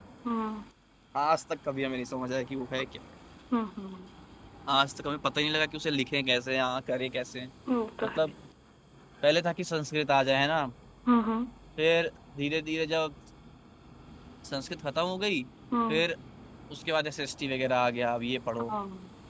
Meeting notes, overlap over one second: none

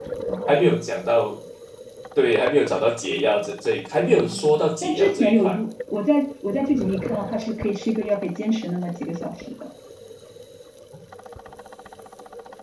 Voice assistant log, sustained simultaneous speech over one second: present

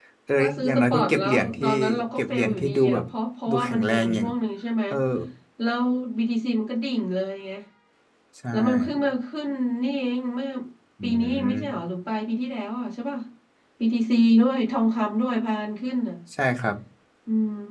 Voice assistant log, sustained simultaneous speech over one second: present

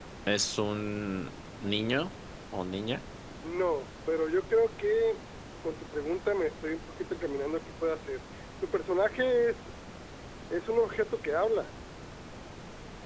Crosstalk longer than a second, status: none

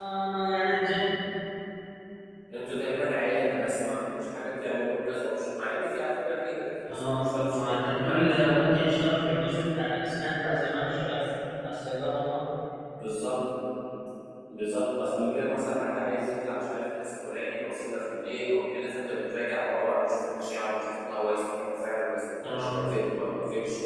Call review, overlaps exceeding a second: present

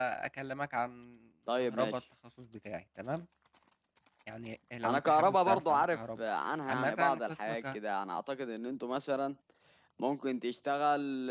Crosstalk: present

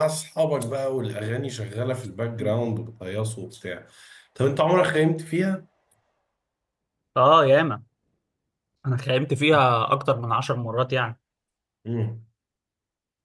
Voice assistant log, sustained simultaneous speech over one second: none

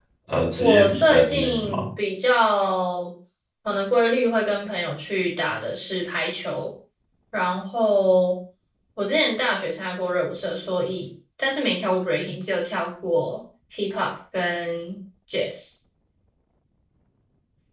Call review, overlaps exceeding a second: present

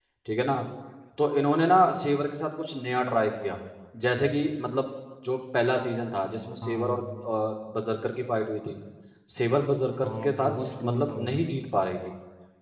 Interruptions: present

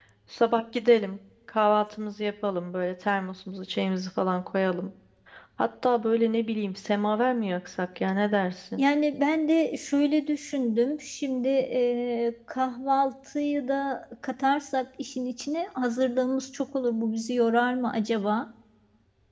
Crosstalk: none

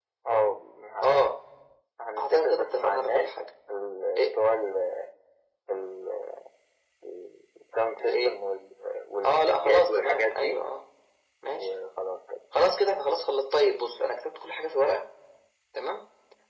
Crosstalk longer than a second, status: present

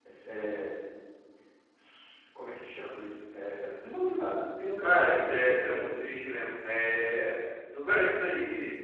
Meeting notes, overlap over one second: present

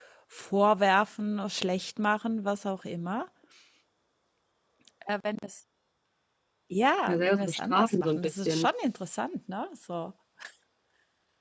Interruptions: present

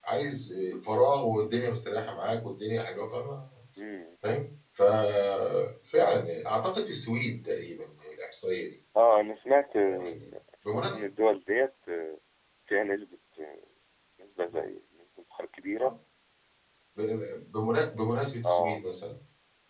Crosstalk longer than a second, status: none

